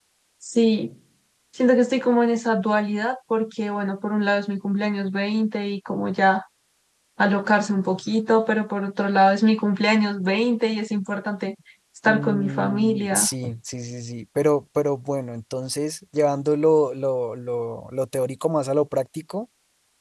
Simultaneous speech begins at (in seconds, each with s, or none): 12.1 s